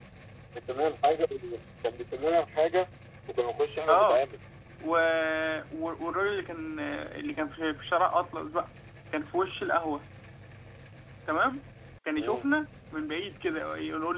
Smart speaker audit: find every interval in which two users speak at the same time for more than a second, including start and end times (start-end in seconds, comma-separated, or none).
none